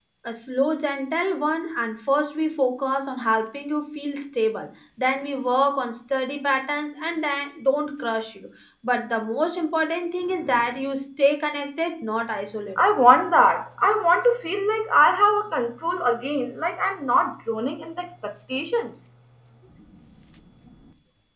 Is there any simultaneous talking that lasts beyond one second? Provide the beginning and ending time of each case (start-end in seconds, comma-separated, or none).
none